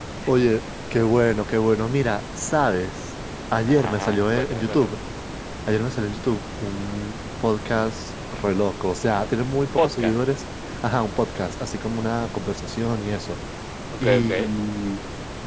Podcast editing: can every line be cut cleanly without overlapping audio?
No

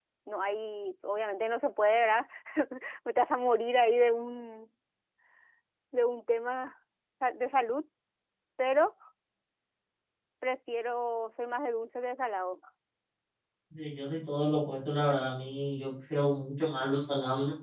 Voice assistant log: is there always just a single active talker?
Yes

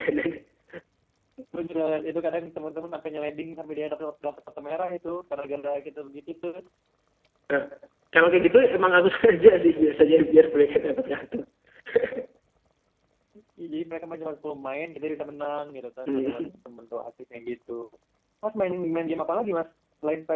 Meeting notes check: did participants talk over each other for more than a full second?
No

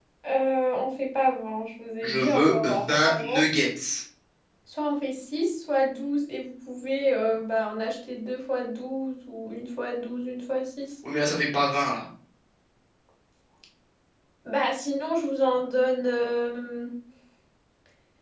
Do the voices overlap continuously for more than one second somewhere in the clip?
Yes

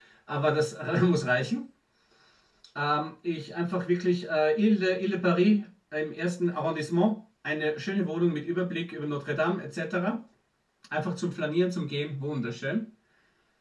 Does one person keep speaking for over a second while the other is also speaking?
No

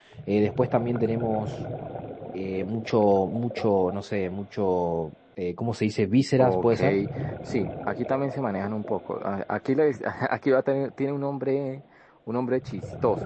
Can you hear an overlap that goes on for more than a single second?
No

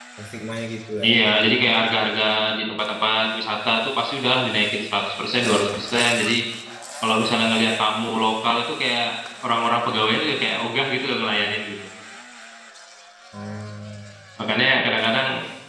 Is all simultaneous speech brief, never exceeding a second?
Yes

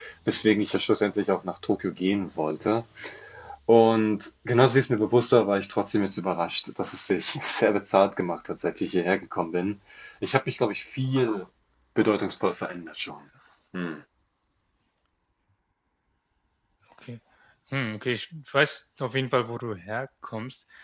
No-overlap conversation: Yes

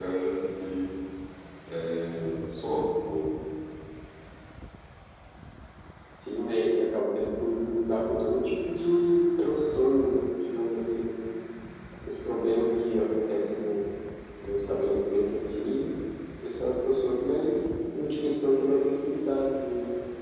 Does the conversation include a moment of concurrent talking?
No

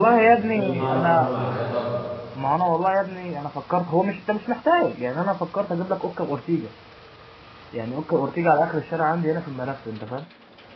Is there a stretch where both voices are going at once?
Yes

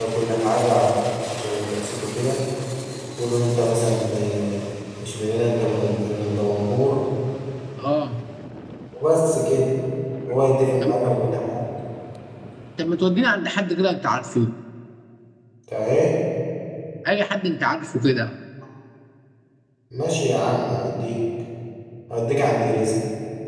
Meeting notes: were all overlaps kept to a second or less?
Yes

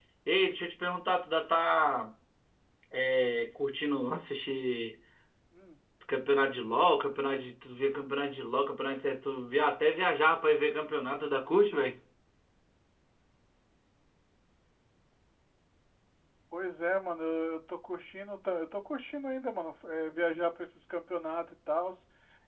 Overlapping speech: No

